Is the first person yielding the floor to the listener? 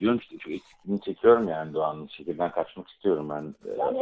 Yes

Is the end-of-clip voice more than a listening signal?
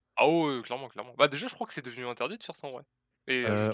Yes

